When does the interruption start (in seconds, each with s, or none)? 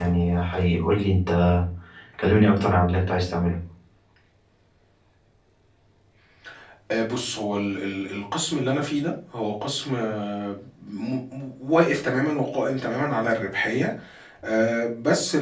none